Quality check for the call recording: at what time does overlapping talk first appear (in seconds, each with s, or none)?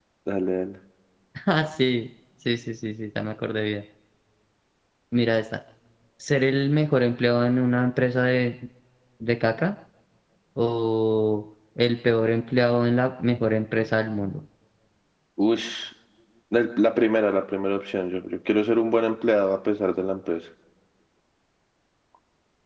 none